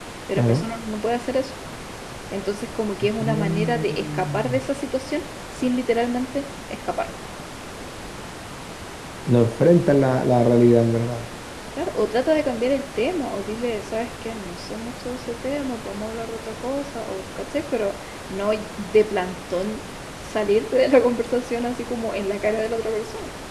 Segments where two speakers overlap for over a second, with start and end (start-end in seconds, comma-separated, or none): 3.2-4.6